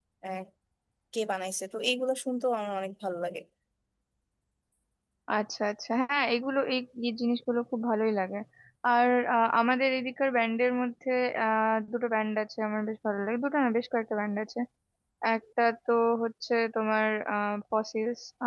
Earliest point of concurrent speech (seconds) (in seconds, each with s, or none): none